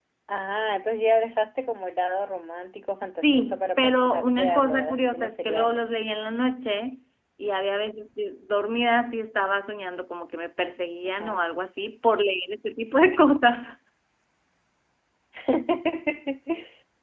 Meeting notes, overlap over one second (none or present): present